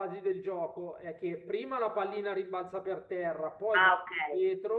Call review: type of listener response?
listening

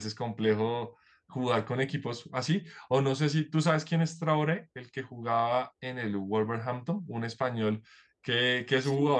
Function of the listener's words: listening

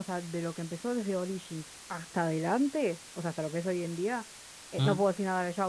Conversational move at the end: listening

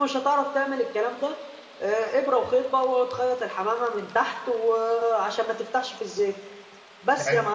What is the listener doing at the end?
taking over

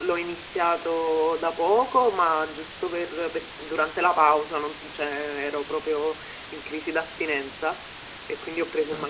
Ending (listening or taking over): listening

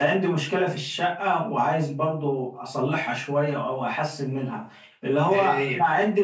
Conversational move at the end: listening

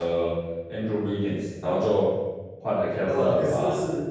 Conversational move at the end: taking over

